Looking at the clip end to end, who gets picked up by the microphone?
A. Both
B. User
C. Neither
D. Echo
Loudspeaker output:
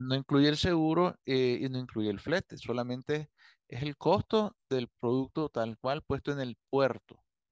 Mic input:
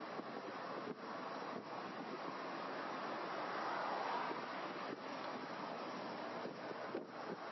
C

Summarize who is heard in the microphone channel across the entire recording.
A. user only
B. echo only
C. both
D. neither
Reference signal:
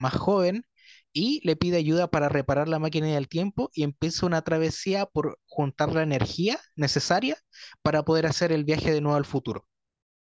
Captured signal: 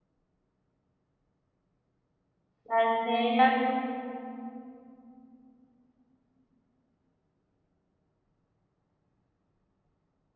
A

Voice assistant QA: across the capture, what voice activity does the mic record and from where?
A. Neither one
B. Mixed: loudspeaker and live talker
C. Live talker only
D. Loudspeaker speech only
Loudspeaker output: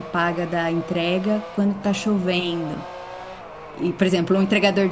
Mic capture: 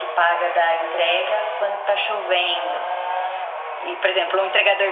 D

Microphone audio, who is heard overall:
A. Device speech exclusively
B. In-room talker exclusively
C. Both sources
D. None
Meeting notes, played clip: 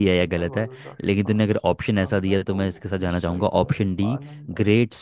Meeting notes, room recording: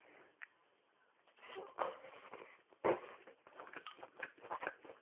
D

